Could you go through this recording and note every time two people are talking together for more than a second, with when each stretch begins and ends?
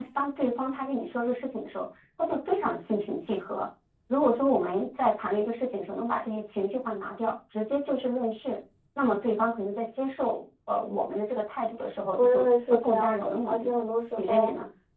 12.1-13.7

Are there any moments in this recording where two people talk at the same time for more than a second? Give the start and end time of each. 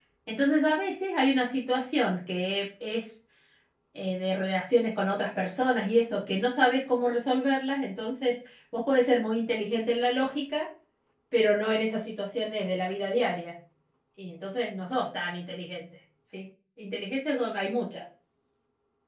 none

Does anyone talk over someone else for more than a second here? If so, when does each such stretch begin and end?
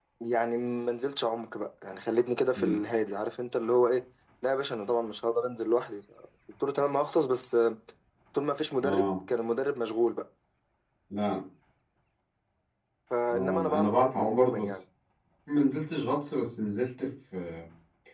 13.3-14.8

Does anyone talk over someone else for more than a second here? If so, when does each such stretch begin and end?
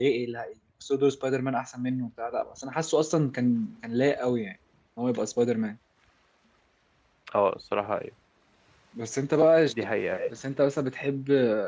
none

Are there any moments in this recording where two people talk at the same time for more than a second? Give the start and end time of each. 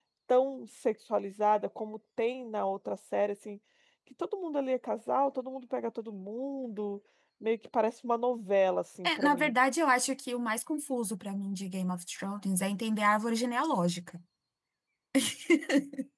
none

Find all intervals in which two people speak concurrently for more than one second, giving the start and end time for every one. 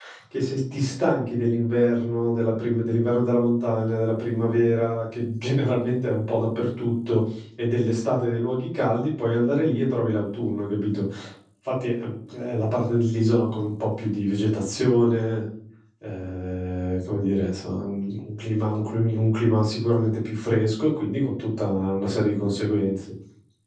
none

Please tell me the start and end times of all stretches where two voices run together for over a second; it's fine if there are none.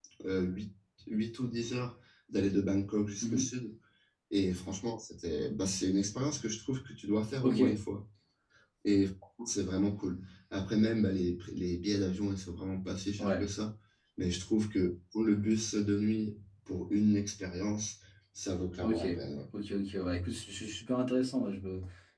none

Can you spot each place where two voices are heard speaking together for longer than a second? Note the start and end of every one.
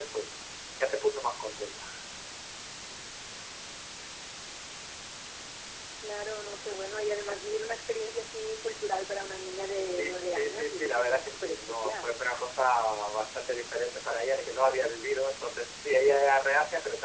9.9-12.2

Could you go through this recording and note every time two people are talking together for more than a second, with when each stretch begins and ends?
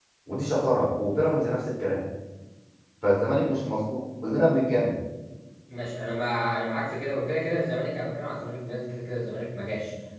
none

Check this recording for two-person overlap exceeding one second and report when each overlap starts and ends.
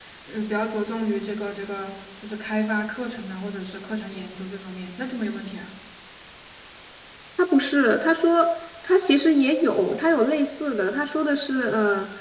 none

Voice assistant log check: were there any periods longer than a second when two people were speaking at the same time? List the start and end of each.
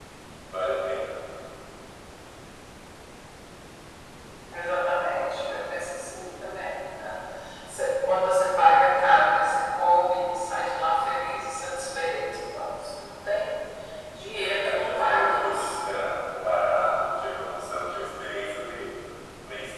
14.2-15.8

